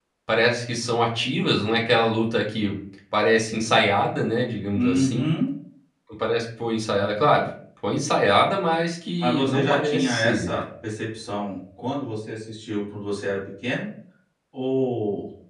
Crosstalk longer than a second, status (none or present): present